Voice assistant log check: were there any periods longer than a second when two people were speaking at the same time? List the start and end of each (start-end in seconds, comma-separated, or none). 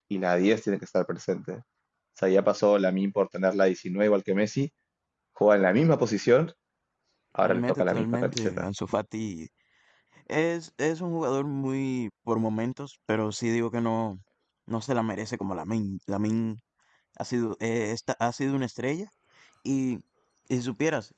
7.4-8.6